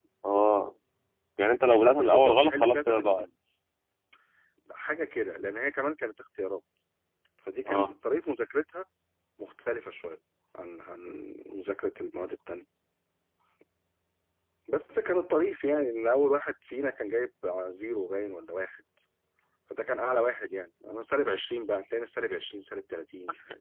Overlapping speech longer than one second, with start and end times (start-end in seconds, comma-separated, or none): 1.8-3.3